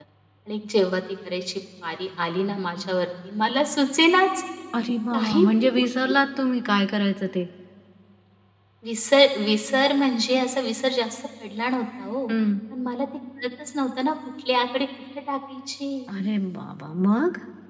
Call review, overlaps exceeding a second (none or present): none